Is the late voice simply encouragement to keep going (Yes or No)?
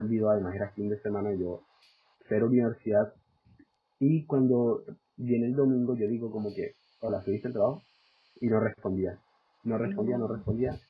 Yes